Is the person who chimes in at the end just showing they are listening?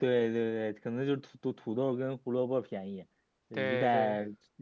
Yes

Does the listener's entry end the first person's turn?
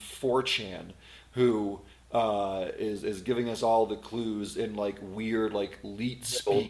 No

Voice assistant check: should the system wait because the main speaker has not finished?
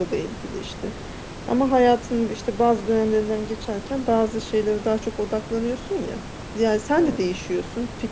Yes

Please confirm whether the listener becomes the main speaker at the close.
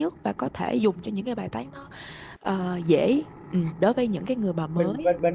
Yes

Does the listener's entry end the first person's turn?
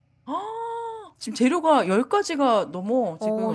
Yes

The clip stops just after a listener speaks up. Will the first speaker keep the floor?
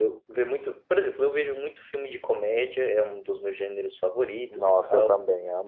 No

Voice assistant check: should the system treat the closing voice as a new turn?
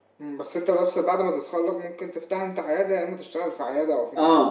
Yes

